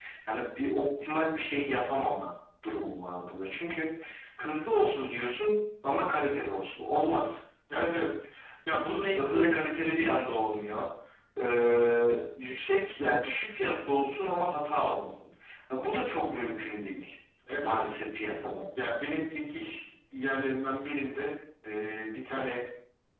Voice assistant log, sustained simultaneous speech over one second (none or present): none